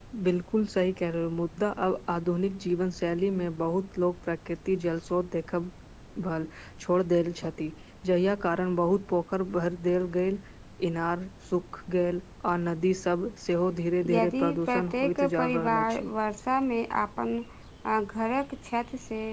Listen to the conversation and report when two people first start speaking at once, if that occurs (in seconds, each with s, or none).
14.0 s